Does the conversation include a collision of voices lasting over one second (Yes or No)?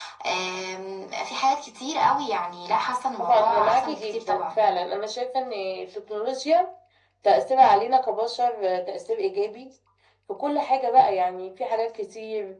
Yes